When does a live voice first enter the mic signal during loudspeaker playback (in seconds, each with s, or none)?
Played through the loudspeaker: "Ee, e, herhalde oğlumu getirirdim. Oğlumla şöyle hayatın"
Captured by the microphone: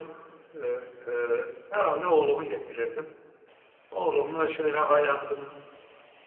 none